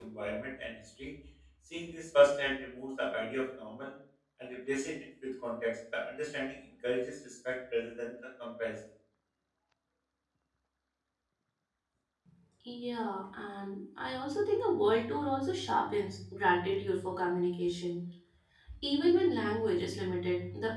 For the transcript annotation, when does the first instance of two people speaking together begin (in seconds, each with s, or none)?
none